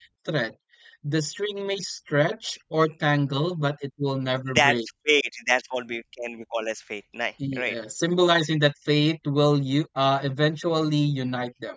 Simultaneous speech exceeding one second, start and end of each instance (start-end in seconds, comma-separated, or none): none